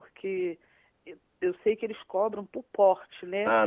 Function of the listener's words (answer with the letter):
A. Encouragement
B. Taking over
B